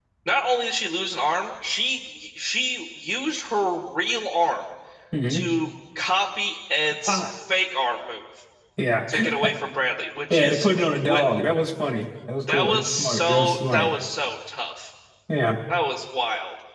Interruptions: present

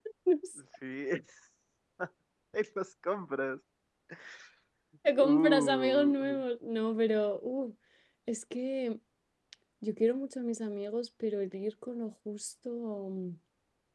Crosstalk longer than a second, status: present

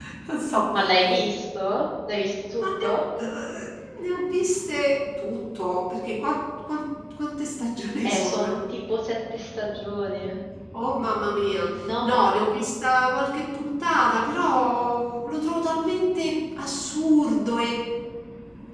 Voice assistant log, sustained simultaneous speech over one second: none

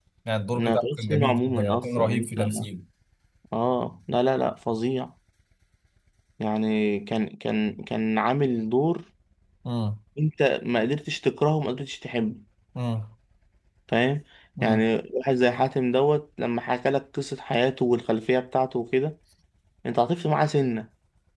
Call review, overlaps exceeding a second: present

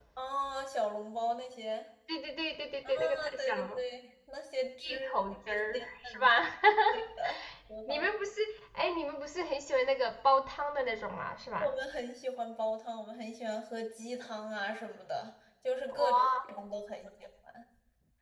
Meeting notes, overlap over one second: present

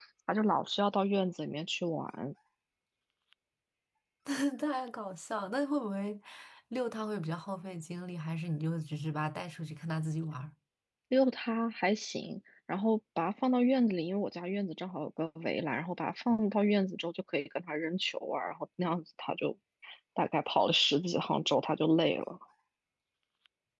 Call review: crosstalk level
none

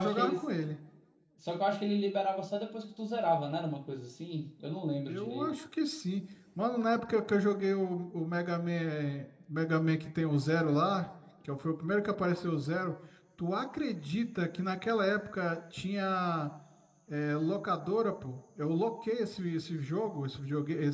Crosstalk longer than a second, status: none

